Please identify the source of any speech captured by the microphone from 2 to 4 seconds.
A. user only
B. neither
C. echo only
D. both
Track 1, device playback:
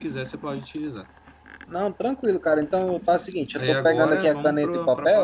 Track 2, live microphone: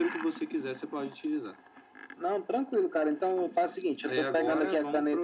C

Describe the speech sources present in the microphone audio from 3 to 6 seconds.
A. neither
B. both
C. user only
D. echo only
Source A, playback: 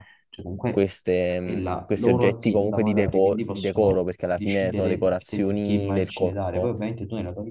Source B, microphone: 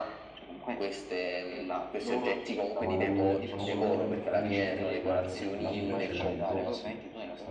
B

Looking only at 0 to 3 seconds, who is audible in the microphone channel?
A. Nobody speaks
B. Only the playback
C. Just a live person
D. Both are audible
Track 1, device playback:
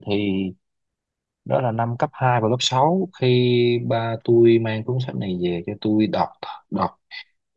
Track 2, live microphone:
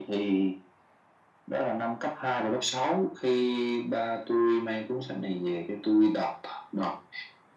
B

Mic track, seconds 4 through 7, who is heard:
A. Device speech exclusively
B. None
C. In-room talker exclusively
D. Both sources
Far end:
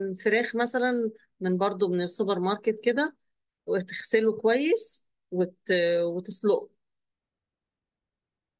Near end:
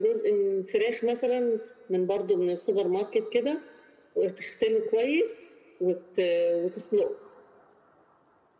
A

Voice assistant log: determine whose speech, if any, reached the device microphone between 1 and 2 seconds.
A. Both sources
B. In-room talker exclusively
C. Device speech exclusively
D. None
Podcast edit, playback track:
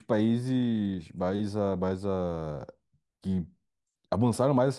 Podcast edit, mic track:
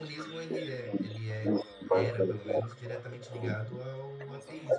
A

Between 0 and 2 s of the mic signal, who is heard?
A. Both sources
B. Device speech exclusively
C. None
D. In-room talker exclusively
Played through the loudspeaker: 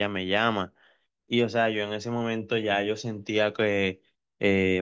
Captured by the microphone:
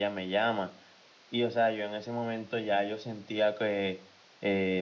B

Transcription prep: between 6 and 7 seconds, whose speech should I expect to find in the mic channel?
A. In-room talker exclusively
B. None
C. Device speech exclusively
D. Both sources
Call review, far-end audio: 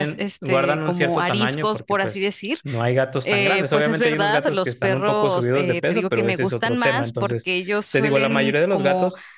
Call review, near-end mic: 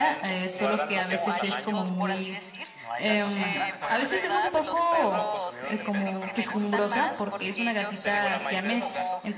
D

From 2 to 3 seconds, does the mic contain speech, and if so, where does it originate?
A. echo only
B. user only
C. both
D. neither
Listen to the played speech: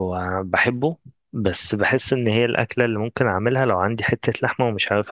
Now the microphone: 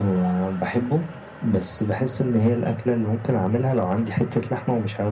A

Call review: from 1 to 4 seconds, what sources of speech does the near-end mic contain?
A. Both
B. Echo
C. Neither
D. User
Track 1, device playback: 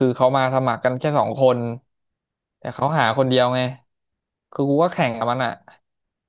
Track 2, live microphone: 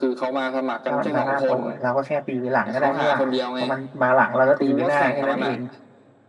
A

